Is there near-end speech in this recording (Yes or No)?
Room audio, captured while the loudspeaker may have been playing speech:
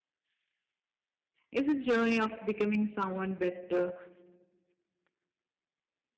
Yes